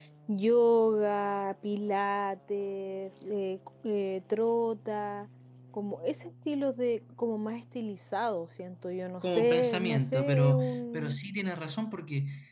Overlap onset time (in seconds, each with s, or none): 9.2 s